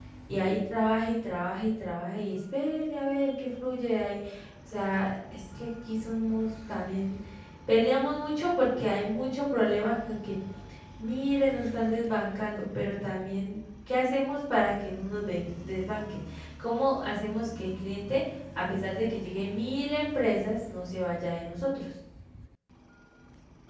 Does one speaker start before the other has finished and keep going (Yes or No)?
No